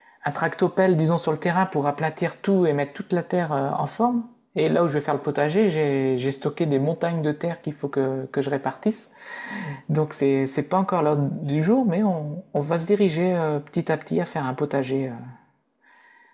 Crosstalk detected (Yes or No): No